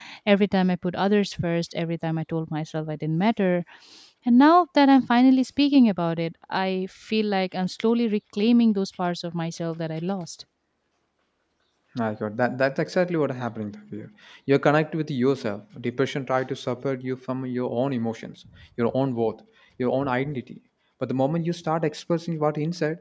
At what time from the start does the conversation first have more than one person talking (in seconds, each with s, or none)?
none